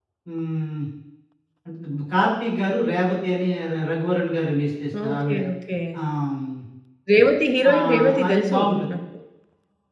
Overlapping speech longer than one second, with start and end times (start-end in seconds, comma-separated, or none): 7.7-8.9